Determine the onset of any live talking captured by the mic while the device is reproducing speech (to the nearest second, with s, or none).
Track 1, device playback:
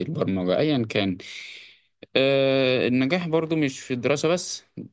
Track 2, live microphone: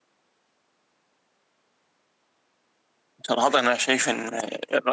3 s